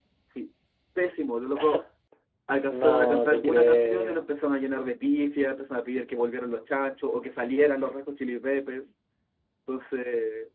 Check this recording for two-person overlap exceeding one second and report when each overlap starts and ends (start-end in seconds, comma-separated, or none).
2.7-4.2